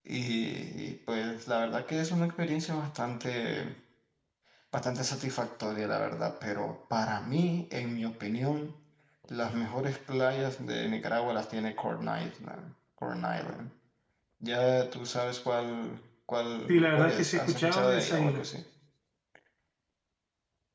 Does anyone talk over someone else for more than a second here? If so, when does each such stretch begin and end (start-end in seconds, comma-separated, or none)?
16.7-18.4